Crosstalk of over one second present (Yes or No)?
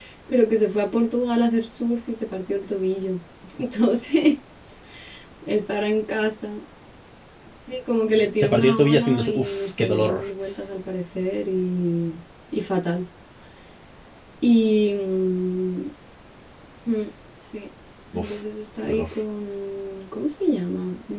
Yes